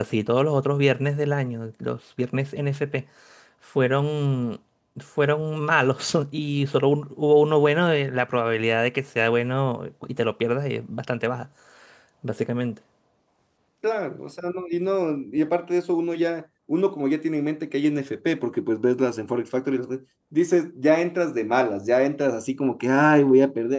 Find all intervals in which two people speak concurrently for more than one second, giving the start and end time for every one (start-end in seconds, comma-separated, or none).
none